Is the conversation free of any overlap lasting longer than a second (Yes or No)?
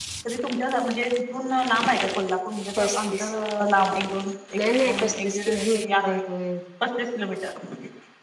No